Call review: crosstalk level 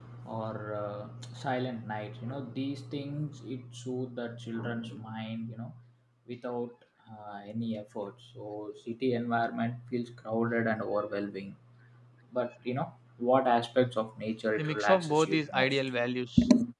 present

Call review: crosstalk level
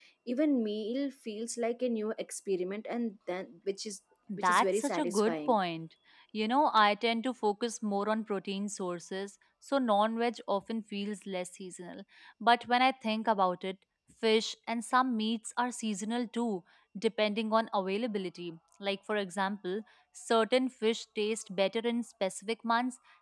present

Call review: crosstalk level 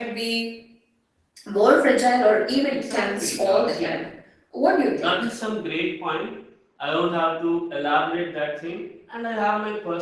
present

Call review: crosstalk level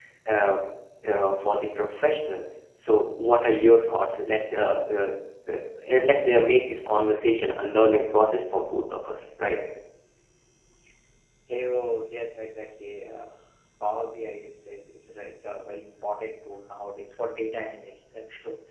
none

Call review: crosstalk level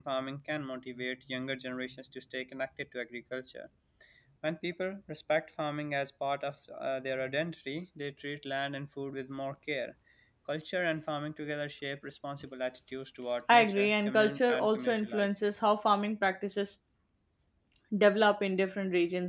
present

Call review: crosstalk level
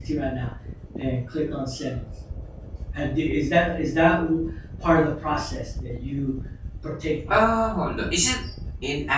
none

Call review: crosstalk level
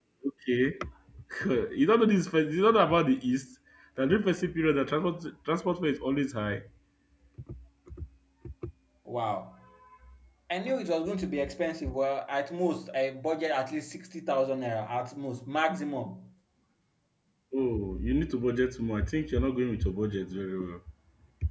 none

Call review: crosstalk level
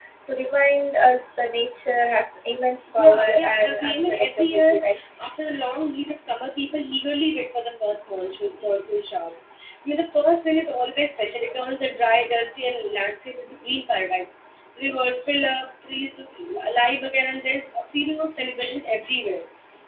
present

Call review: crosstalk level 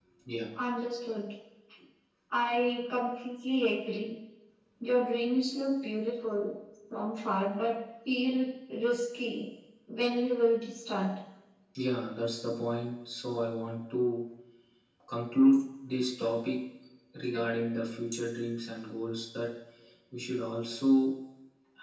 none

